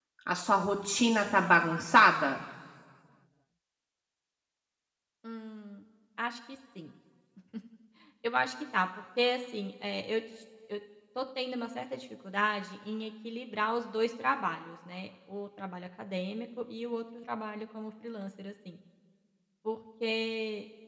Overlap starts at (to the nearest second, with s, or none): none